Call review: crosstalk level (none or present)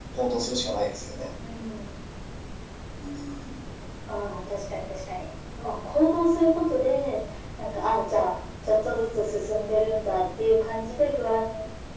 none